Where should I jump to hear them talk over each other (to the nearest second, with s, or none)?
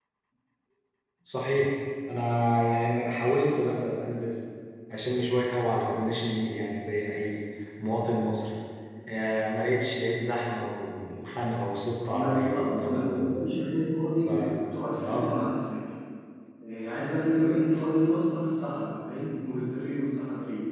12 s